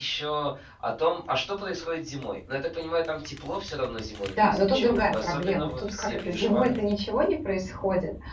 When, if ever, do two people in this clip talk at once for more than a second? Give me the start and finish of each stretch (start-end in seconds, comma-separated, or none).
4.4-6.7